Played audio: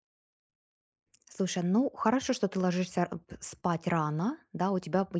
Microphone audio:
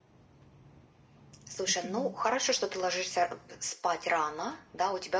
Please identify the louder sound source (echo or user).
echo